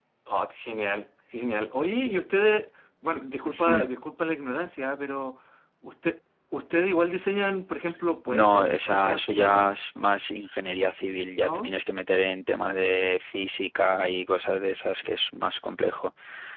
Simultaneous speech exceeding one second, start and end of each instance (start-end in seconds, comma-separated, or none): 8.3-9.8